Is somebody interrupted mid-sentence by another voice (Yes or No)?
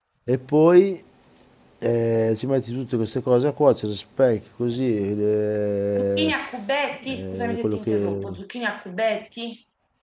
Yes